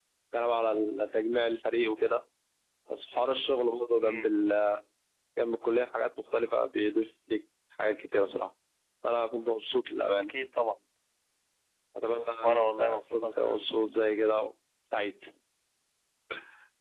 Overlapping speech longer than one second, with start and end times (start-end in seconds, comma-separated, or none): 12.4-13.7